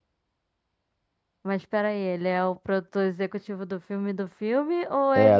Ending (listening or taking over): taking over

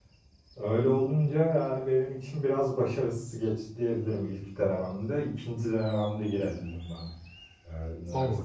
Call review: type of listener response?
taking over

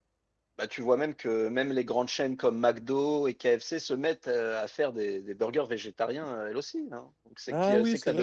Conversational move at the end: taking over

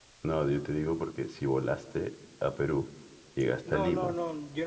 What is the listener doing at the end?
taking over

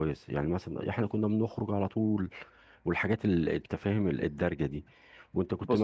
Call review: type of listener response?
listening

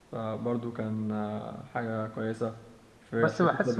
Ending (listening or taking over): taking over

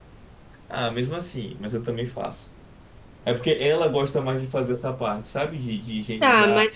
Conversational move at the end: taking over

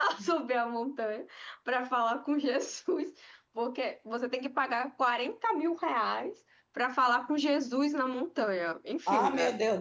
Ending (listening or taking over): taking over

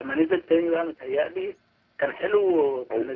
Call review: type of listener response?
listening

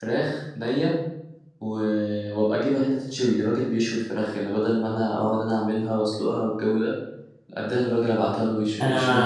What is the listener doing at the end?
taking over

